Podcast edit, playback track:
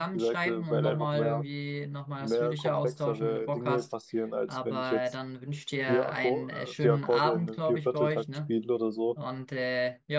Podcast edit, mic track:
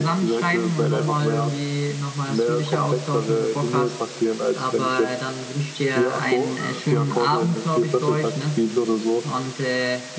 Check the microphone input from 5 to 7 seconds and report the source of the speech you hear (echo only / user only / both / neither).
echo only